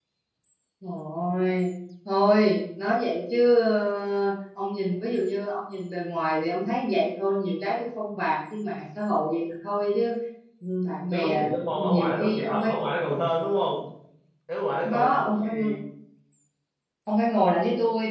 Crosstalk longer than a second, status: present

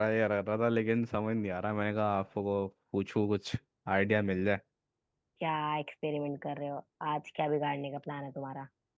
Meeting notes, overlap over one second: none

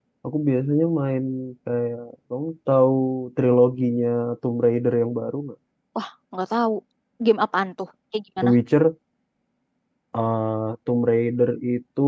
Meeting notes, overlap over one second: none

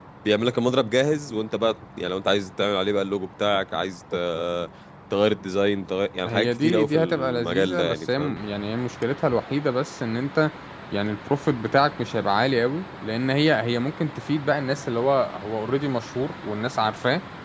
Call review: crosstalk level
present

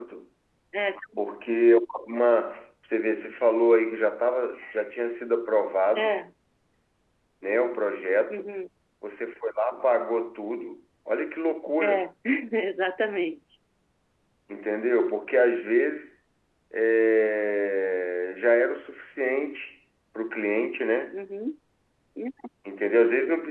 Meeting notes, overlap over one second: none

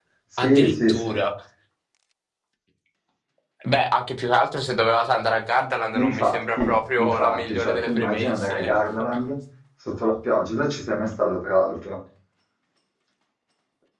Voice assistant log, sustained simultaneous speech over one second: present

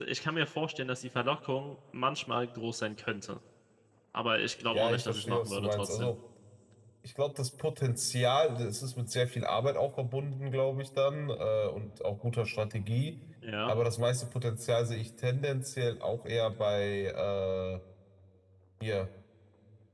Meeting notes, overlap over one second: present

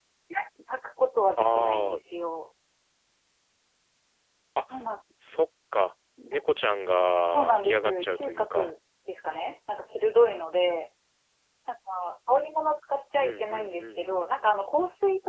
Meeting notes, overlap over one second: present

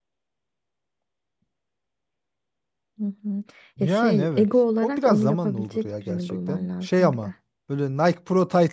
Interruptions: present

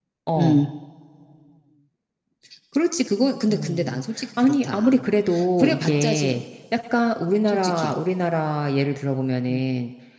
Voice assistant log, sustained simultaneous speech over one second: present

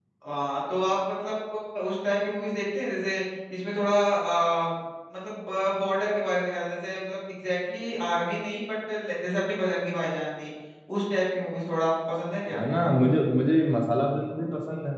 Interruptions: none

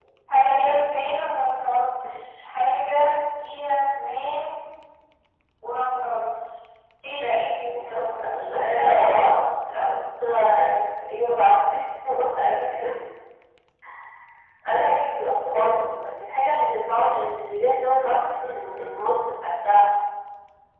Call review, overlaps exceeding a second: present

